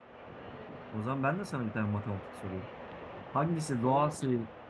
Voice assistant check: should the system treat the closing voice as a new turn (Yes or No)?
No